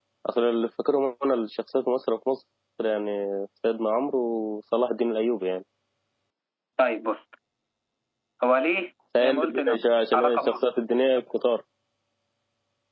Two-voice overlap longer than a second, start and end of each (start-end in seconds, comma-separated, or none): 9.2-10.6